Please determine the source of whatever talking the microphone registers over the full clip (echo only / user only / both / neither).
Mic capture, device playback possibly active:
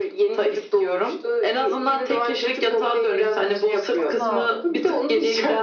both